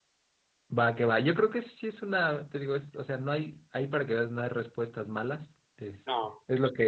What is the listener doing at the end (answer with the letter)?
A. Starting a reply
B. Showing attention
B